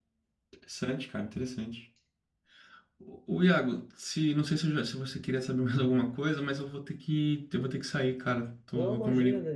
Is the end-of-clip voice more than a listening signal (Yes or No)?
Yes